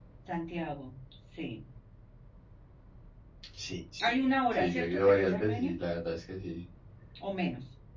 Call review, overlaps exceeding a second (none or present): present